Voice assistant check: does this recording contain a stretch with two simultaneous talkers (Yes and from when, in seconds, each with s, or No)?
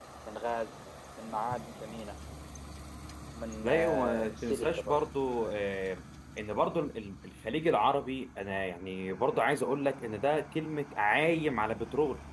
Yes, from 3.6 s